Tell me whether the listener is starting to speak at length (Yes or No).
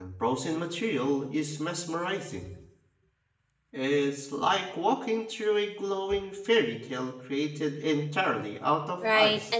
Yes